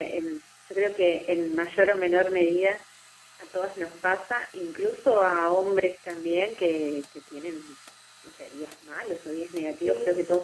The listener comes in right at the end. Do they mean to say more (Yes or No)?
No